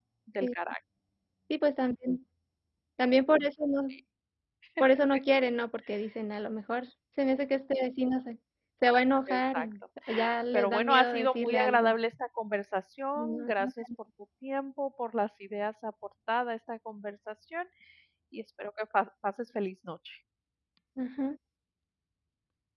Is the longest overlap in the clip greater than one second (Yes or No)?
Yes